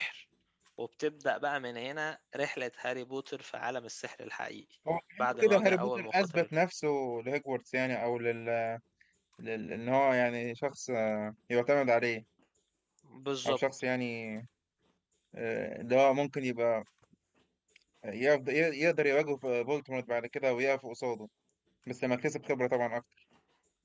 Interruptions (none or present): present